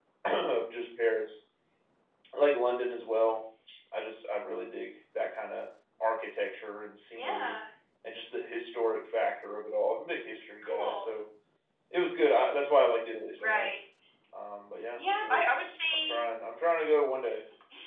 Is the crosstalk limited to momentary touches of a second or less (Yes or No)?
Yes